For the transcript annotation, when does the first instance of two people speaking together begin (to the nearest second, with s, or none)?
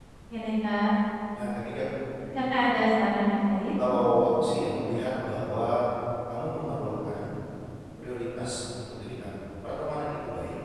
none